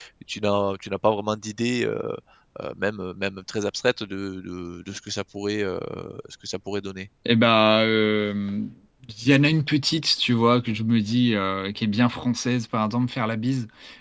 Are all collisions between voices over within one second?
Yes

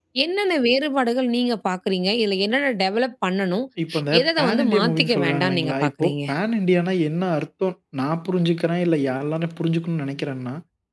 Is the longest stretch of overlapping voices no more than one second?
No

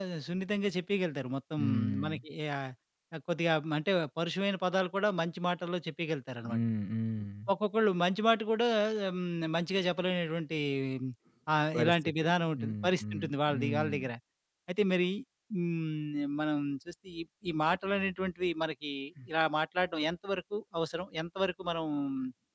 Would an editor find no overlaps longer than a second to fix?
No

